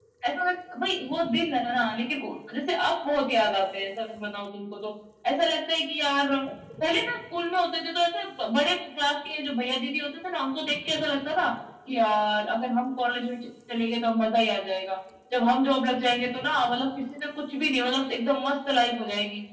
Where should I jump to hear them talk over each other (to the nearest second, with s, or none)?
none